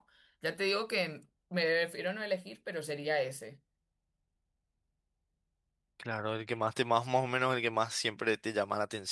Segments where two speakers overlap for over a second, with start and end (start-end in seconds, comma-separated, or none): none